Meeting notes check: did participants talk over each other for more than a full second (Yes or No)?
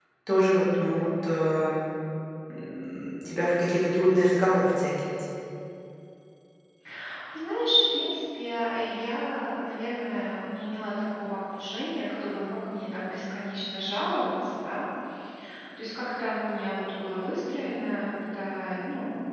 No